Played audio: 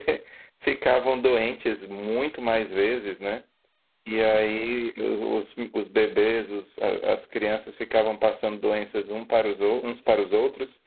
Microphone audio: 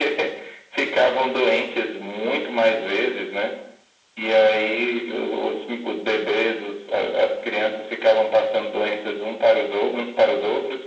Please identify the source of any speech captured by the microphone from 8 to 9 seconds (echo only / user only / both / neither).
echo only